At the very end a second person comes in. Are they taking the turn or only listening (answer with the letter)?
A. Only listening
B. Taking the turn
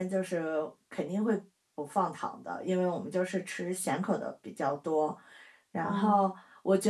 A